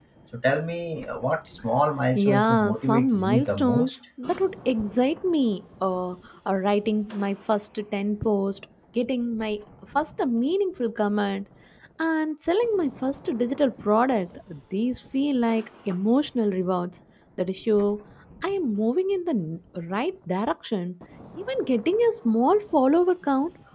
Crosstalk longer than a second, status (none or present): present